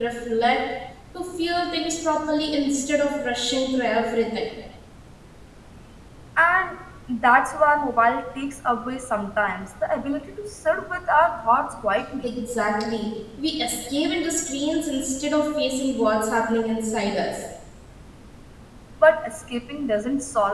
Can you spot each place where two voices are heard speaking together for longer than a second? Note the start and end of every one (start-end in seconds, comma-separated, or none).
none